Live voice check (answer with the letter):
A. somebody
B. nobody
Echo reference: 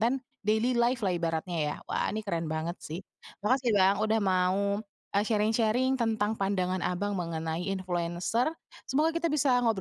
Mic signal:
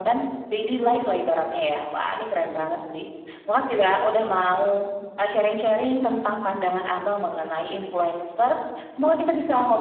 B